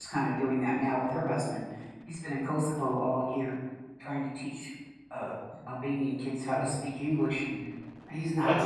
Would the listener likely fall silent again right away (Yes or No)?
Yes